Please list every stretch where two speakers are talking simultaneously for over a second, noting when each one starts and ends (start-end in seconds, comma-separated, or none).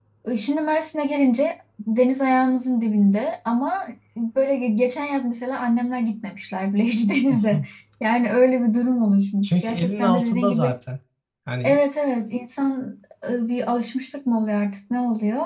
9.4-10.7